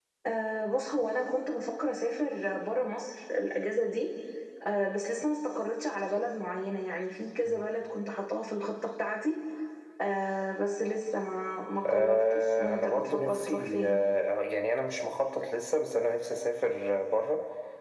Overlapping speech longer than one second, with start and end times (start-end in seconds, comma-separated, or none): 11.9-14.1